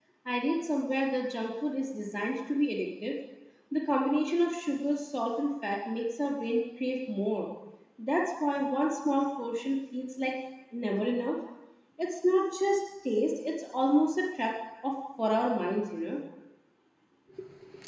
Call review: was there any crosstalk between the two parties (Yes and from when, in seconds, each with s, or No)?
No